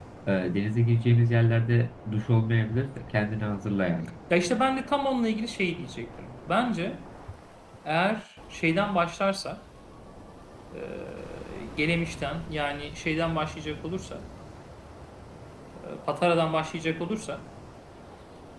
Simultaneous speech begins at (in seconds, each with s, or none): none